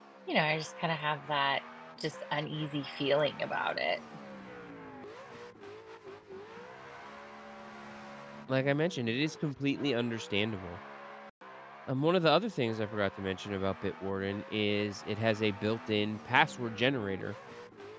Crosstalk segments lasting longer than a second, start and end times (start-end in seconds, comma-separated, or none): none